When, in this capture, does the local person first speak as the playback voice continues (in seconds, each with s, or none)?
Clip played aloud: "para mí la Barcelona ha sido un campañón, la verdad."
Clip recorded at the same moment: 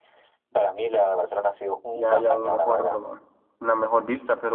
1.9 s